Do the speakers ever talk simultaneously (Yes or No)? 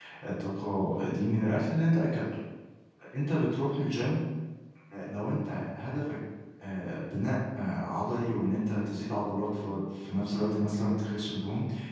No